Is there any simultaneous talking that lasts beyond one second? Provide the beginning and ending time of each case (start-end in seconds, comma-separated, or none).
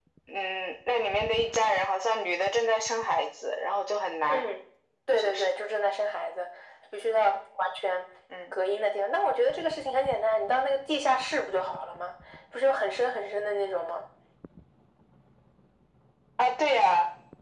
none